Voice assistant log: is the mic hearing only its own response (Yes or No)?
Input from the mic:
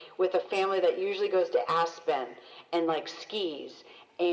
Yes